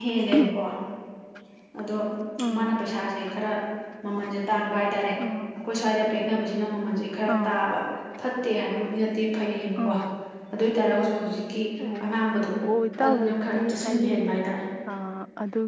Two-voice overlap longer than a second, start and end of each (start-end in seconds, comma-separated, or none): 13.0-14.2